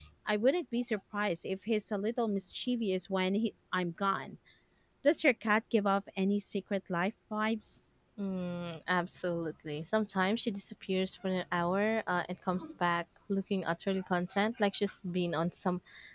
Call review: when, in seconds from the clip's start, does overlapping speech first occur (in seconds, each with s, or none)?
none